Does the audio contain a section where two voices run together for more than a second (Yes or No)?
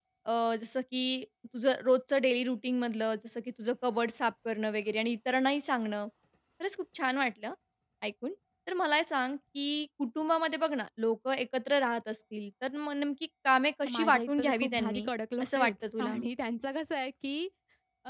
Yes